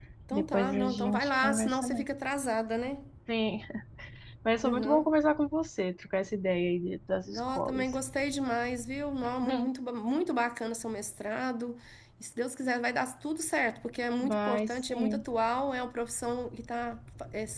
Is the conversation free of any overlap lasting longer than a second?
No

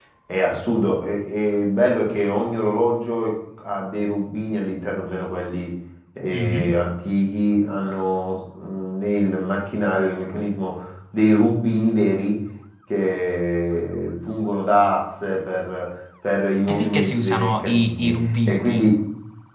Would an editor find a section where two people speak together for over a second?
Yes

